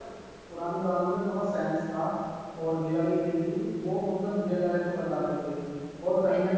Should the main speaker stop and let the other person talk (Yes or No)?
Yes